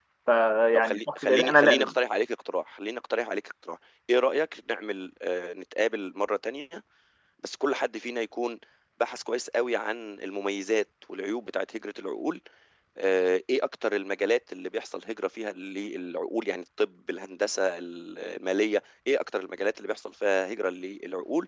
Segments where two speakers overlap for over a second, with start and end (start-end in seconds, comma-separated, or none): 0.7-1.9